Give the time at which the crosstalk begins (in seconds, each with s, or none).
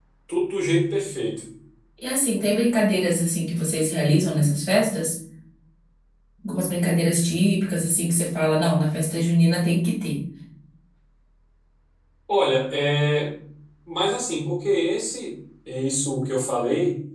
none